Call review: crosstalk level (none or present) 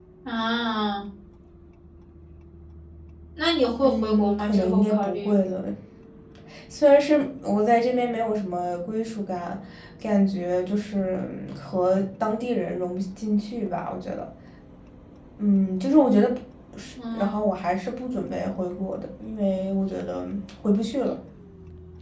present